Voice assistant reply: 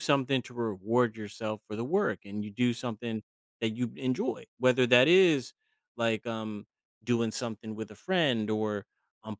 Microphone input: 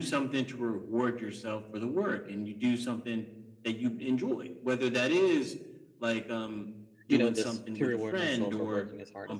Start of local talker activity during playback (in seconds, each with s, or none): 7.1 s